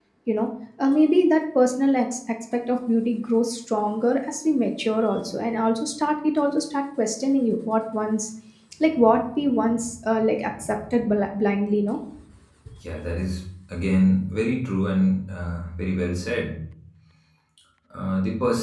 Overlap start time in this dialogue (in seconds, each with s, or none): none